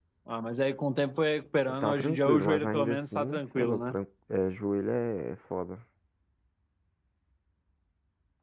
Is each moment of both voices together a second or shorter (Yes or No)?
No